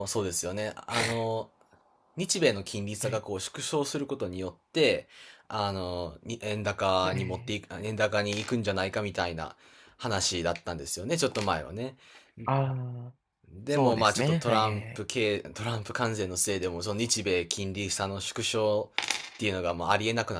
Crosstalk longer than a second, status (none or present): present